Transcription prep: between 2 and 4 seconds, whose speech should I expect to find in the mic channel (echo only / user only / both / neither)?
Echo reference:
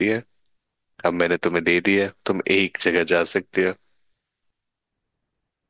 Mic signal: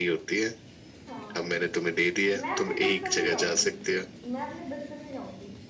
both